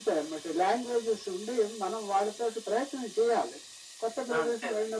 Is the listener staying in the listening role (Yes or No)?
Yes